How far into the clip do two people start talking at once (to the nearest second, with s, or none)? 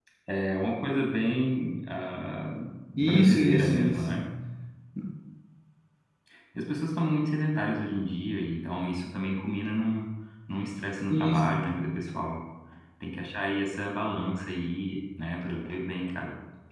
3 s